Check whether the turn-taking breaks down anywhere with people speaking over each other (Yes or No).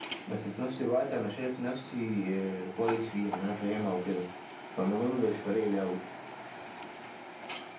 No